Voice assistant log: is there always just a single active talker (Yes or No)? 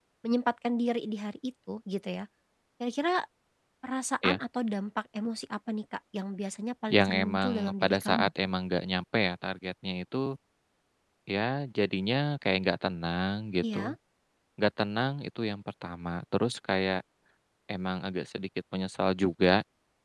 No